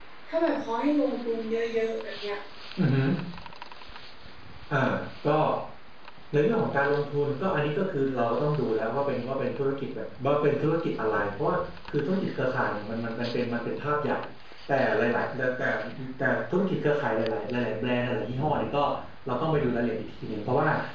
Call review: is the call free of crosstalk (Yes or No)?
Yes